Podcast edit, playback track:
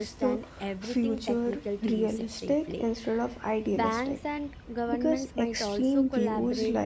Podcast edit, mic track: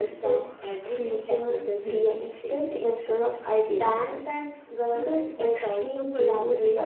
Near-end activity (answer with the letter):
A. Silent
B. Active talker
A